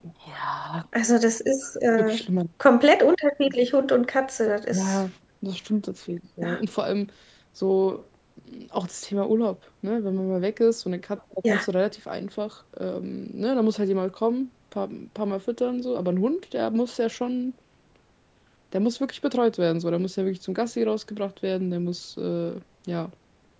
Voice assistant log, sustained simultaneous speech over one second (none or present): none